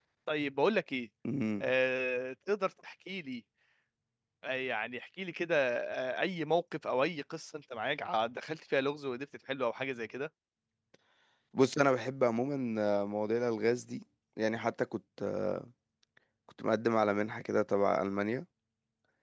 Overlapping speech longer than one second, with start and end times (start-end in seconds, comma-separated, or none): none